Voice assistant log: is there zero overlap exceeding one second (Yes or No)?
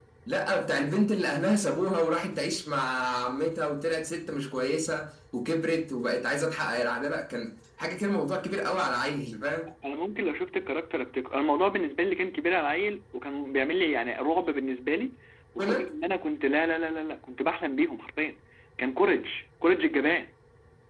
Yes